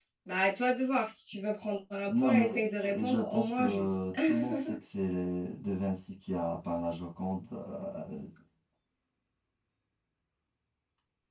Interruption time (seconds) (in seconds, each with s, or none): 2.1 s